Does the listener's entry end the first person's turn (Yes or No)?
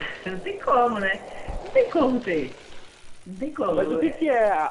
Yes